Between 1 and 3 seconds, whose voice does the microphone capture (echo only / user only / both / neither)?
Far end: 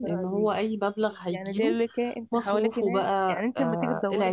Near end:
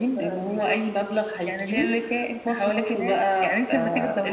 echo only